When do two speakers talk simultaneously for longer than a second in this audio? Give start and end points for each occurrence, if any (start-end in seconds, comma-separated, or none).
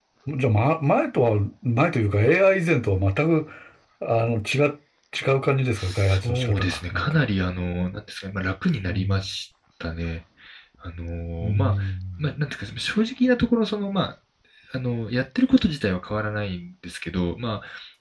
5.8-7.2